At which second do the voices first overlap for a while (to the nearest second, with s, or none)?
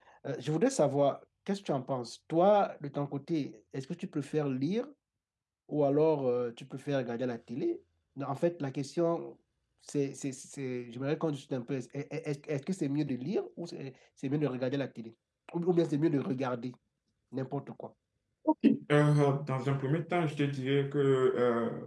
none